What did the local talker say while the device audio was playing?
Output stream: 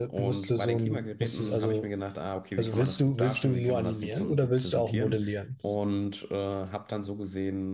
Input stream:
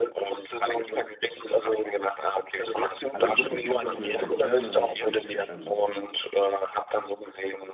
Also grundsätzlich ist das möglich, ja, dann habe ich richtig verstanden.

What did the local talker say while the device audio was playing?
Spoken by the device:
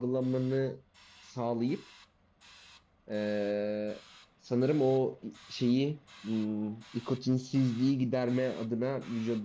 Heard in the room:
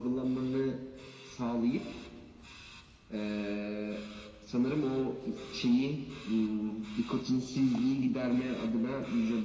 none

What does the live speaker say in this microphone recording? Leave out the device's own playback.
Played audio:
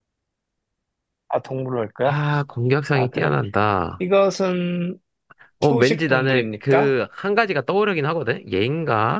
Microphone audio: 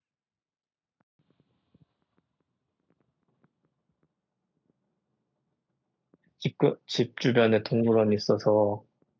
집, 그- 집 주변에 동물원이 있어서.

